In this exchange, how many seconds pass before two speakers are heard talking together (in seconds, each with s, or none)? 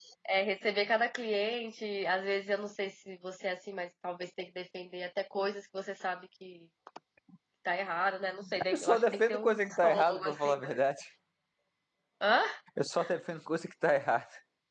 8.6 s